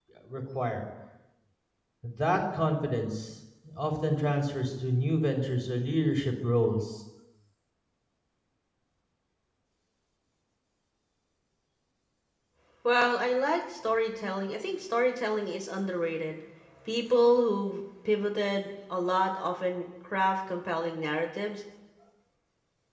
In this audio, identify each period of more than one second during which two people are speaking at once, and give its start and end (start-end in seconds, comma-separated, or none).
none